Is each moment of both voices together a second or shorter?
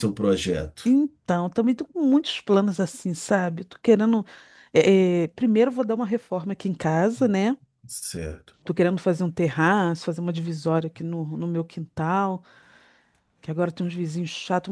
Yes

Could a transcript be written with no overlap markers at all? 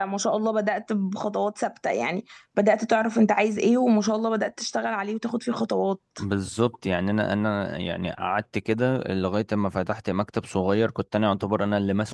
Yes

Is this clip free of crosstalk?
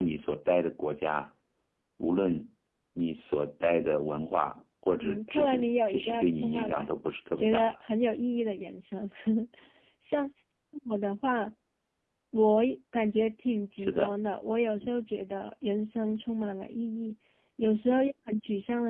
No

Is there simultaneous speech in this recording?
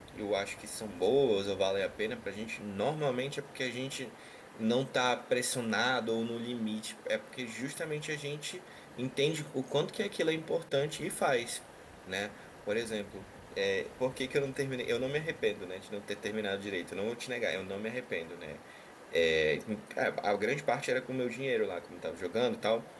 No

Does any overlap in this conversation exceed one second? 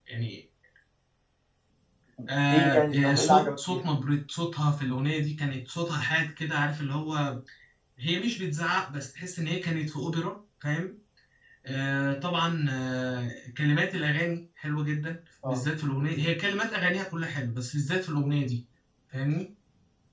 Yes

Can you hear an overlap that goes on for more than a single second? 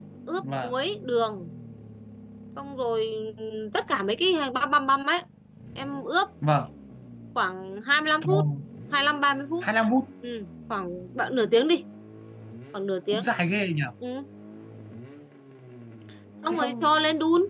No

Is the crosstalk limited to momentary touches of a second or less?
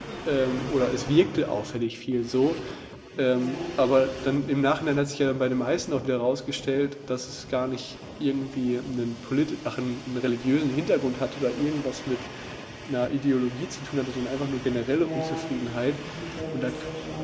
Yes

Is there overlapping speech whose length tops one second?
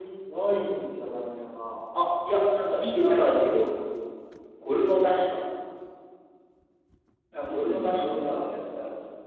Yes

